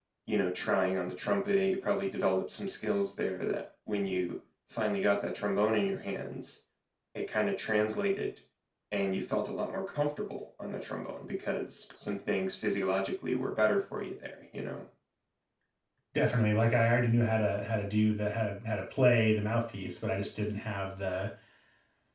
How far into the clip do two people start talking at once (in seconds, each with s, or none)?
none